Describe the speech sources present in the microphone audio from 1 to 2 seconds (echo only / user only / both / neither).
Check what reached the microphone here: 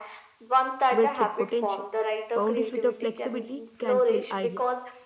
both